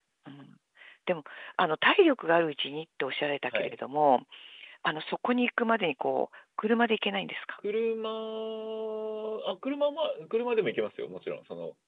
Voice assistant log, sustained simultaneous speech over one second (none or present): none